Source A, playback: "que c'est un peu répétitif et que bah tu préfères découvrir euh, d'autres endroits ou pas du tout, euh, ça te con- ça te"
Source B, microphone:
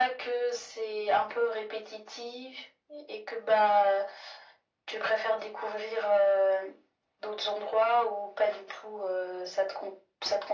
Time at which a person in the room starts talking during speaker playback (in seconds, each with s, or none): none